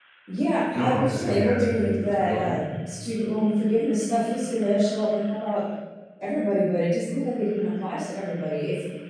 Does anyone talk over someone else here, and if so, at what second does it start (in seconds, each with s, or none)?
0.7 s